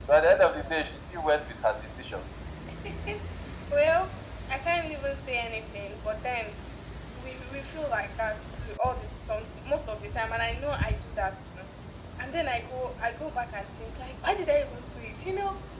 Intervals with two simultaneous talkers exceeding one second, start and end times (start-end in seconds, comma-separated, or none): none